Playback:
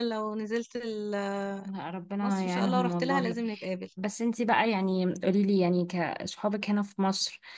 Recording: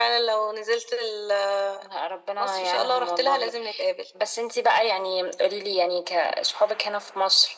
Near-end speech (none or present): none